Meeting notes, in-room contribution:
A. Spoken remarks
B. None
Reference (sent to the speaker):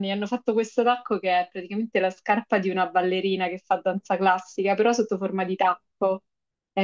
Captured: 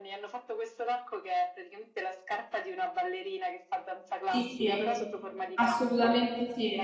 A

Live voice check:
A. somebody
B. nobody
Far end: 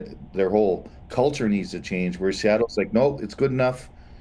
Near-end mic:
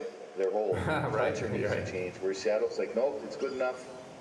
A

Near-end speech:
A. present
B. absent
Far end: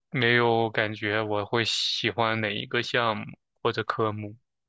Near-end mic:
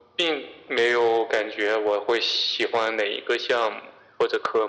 B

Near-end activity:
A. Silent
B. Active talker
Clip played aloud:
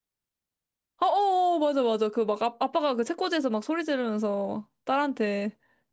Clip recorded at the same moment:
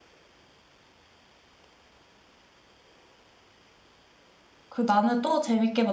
B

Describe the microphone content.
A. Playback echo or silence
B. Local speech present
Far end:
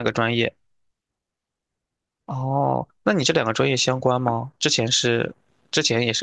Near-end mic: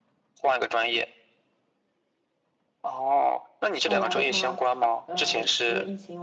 B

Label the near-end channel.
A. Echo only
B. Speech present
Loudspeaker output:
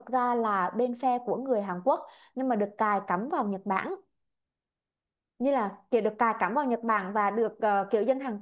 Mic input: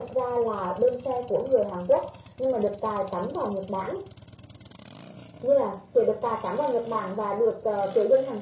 A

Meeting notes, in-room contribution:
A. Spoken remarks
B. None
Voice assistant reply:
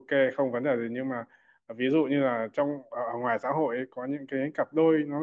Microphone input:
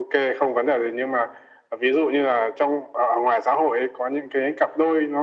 B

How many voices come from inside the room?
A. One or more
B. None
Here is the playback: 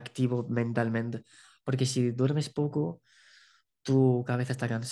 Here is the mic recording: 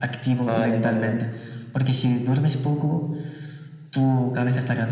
A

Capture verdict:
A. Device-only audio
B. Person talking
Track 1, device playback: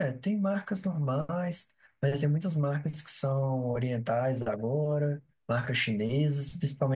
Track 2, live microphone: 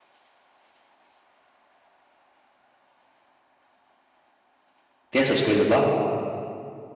B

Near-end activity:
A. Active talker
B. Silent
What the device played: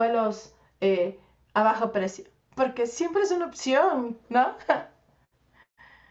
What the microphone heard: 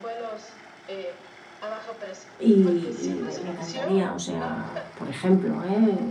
A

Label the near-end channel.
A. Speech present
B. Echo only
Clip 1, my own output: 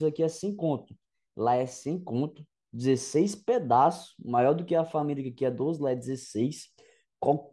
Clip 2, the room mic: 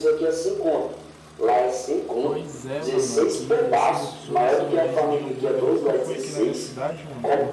A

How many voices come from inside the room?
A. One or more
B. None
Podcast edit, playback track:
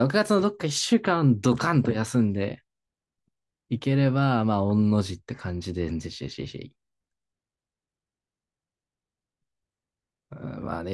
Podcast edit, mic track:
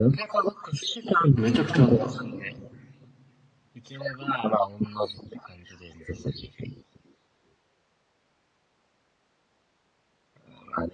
A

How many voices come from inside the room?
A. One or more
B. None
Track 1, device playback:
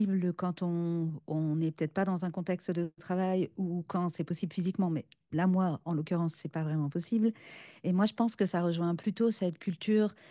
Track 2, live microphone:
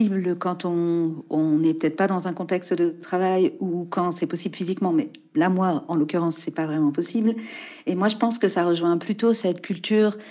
B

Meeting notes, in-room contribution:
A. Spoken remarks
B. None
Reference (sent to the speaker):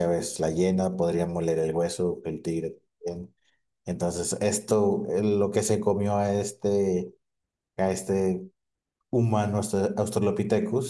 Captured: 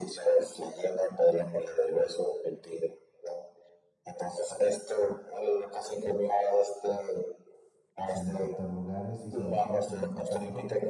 A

